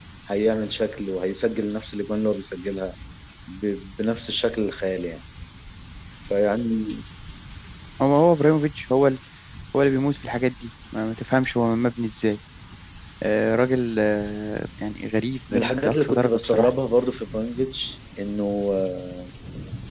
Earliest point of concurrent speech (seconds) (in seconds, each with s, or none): 15.5 s